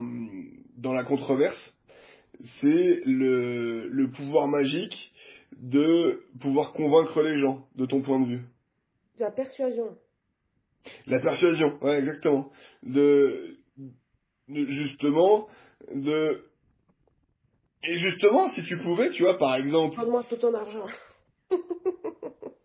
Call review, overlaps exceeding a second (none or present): none